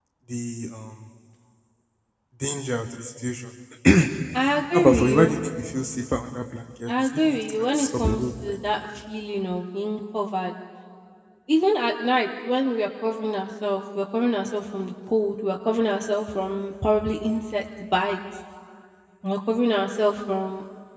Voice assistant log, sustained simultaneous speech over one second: present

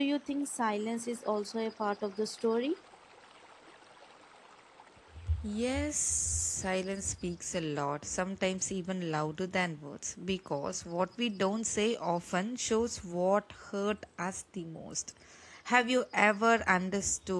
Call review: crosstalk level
none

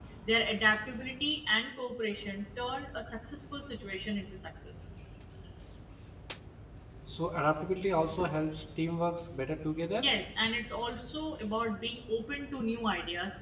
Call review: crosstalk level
none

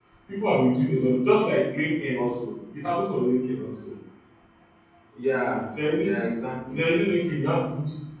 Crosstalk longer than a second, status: none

